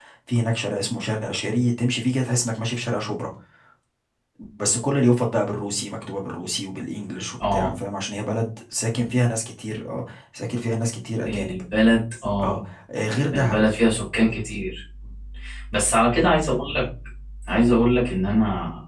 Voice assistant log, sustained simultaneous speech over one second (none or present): none